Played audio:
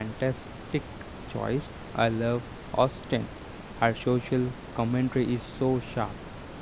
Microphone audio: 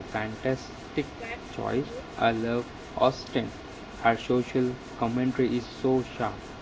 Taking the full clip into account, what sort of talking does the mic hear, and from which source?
both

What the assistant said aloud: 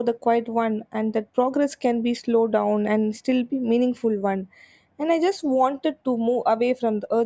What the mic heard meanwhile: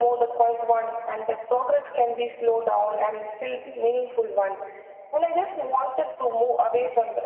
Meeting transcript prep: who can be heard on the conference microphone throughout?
echo only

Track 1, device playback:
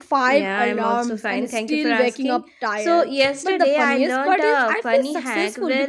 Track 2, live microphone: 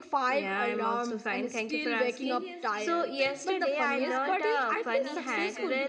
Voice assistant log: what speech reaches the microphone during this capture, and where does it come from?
both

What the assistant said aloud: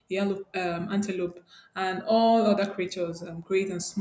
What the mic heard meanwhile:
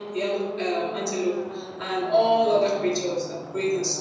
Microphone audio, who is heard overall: echo only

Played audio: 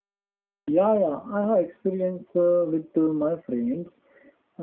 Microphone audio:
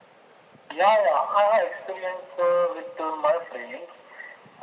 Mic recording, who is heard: echo only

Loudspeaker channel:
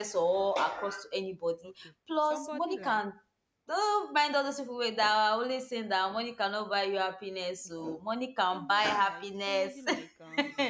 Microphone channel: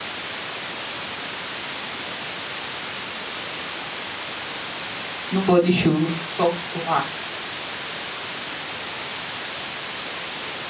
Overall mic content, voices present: user only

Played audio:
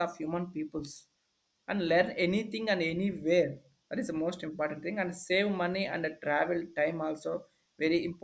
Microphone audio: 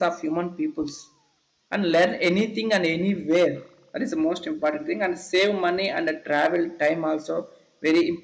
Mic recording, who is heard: echo only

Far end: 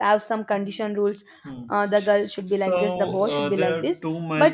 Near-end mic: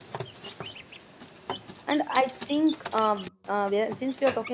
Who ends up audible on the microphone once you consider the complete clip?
user only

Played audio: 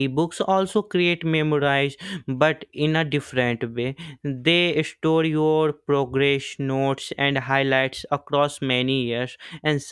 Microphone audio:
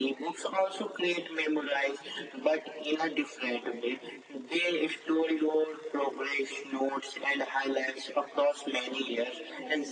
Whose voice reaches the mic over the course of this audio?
both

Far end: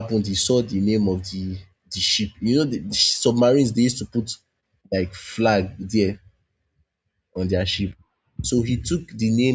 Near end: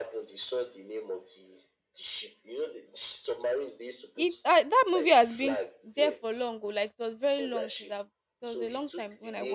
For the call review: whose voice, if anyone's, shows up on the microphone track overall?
both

